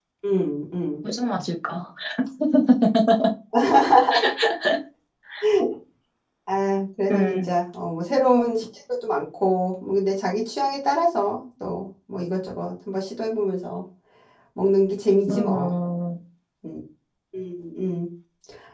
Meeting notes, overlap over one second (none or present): none